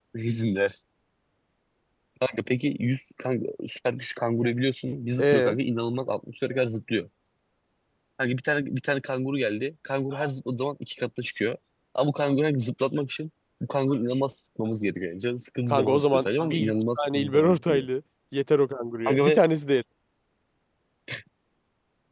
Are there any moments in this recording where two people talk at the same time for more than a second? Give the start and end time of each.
15.7-17.9

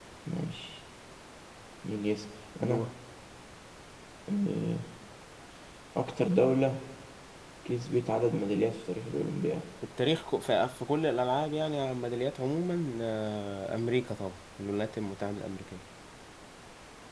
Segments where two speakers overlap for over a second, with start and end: none

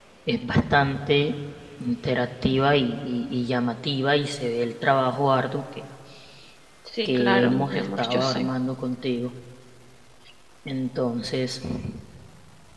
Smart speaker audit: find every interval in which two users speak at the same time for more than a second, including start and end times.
7.0-8.5

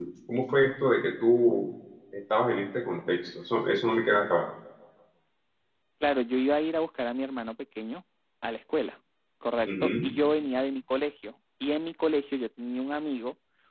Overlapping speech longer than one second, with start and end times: none

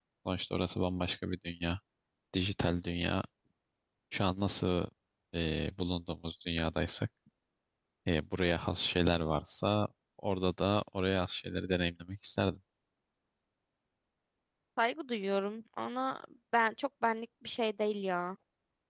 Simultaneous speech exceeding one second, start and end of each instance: none

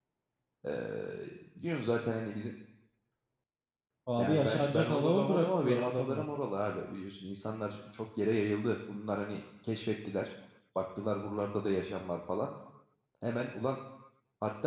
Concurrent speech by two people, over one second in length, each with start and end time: 4.2-6.2

